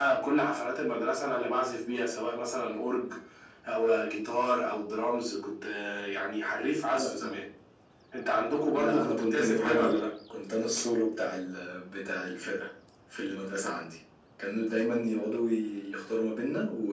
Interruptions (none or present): present